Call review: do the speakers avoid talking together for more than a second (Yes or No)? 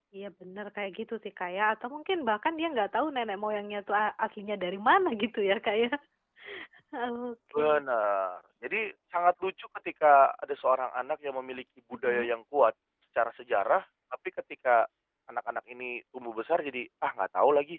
Yes